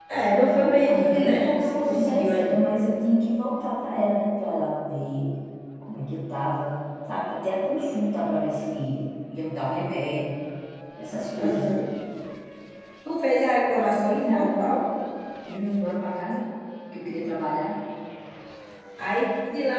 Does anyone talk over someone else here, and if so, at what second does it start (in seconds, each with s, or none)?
0.5 s